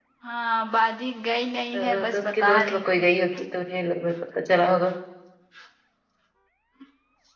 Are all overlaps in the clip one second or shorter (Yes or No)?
No